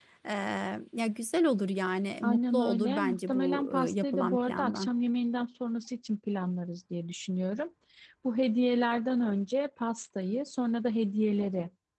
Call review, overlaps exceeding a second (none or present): present